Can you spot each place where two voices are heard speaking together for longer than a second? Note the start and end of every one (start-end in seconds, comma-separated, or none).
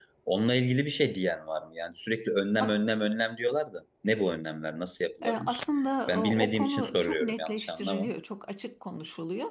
6.1-8.1